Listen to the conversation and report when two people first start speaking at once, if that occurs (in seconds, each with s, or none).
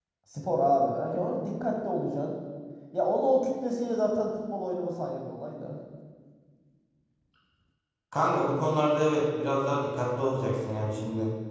none